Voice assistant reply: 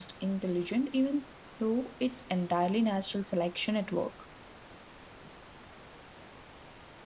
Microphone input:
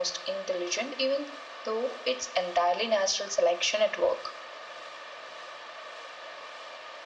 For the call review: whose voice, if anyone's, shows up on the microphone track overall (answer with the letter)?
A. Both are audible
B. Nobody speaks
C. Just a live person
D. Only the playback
D